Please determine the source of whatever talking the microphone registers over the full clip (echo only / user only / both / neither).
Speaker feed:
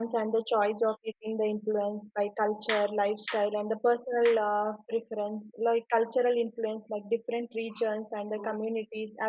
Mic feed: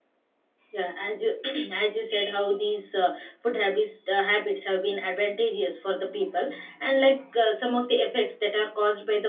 user only